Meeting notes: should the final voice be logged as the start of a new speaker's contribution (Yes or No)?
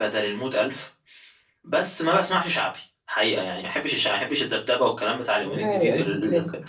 Yes